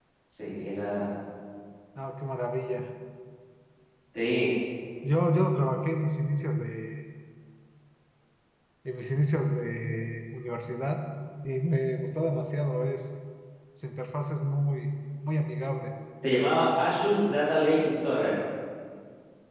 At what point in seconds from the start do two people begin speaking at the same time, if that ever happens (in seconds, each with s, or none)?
none